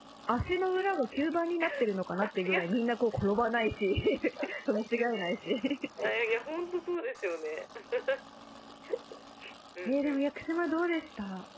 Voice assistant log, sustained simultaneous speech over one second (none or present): none